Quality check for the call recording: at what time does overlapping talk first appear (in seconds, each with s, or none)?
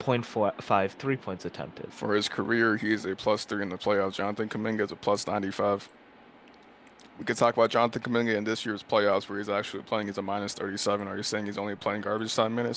none